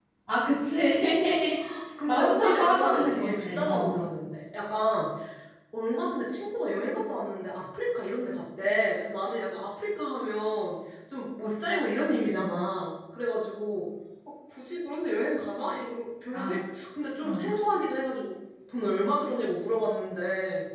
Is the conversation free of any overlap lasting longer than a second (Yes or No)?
No